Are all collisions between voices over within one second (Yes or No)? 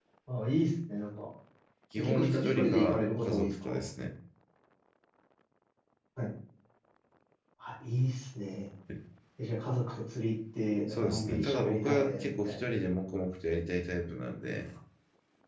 No